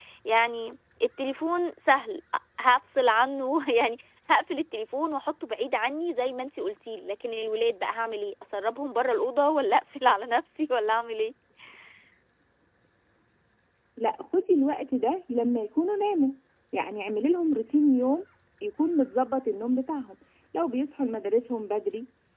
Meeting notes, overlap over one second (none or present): none